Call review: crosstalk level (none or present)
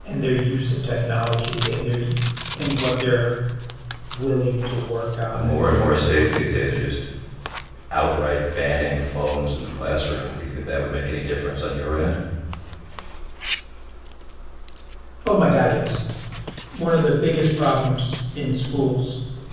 present